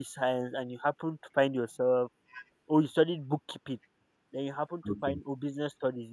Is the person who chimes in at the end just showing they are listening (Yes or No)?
Yes